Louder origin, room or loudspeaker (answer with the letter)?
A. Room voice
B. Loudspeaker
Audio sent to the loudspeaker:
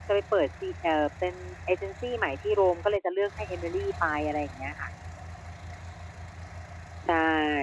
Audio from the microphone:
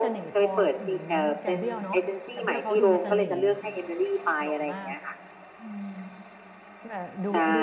B